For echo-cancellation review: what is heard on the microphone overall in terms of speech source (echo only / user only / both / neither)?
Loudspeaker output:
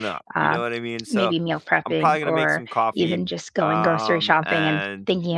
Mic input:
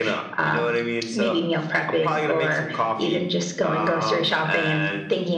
echo only